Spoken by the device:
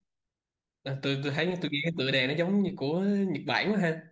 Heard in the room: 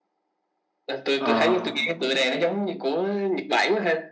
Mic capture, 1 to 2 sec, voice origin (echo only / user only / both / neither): both